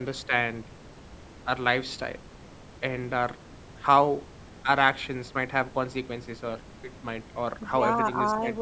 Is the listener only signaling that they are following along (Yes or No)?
No